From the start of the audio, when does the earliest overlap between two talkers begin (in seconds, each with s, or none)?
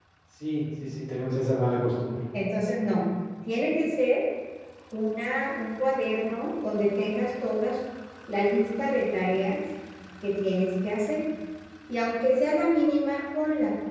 none